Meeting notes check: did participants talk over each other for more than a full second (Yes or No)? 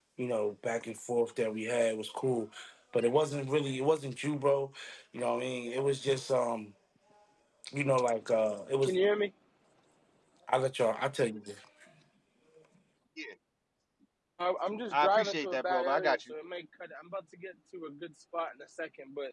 Yes